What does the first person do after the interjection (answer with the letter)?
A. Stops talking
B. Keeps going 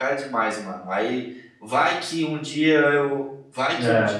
B